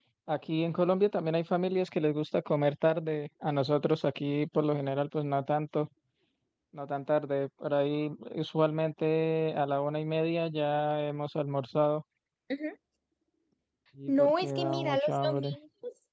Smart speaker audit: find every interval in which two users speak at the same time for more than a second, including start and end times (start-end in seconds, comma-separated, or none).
14.1-15.5